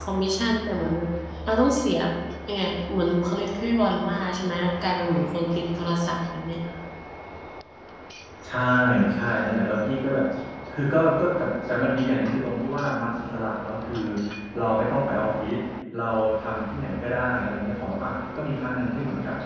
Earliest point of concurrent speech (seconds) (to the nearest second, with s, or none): none